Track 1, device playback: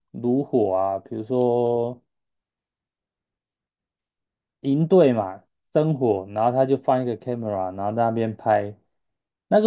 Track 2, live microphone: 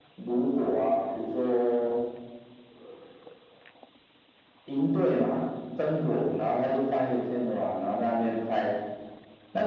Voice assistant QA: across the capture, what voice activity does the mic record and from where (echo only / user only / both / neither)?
echo only